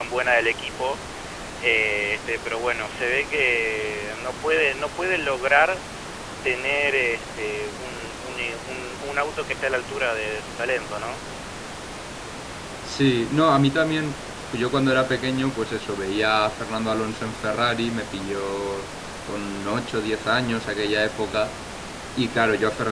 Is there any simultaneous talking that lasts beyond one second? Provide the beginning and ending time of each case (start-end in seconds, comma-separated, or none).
none